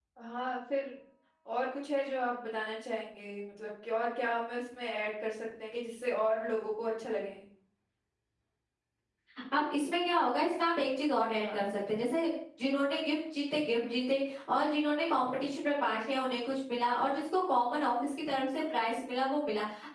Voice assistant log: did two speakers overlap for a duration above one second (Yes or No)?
No